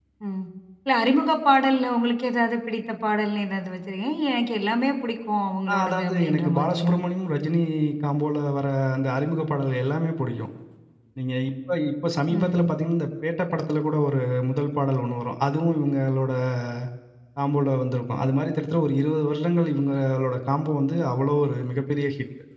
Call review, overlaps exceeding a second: present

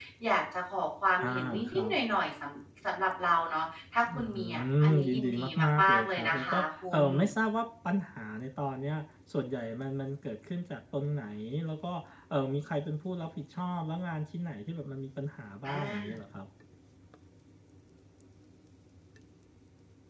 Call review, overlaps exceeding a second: present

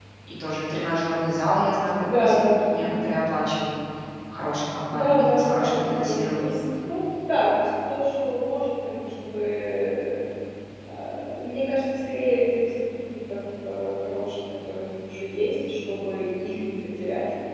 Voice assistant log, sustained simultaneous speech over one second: present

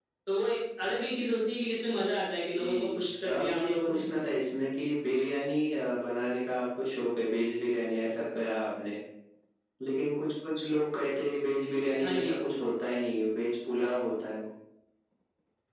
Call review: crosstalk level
present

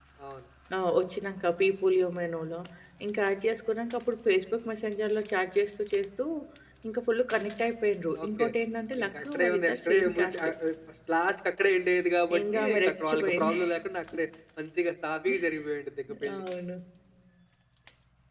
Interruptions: present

